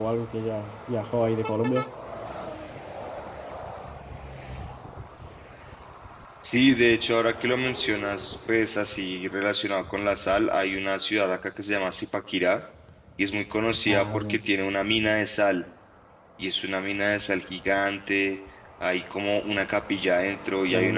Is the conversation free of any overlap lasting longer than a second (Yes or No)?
Yes